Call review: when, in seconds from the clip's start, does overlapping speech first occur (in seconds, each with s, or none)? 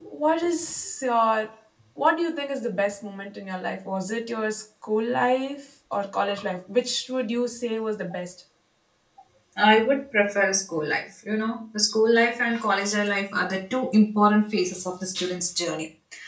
none